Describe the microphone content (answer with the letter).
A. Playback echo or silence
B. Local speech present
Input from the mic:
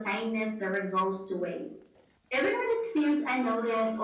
A